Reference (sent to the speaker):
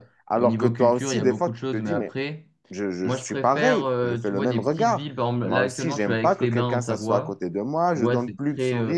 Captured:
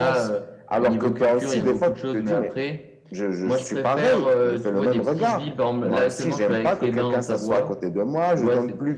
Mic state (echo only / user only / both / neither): echo only